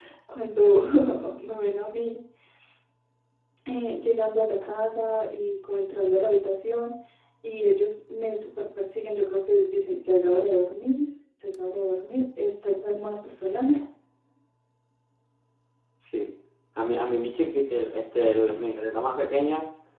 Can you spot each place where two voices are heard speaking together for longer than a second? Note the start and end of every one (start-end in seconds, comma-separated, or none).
none